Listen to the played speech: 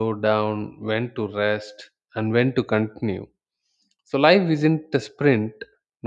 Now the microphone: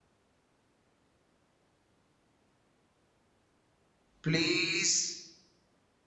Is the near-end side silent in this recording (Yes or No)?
No